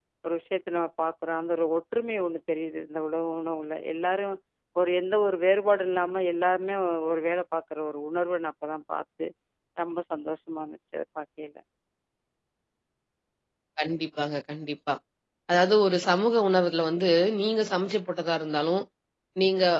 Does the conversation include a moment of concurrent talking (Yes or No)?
No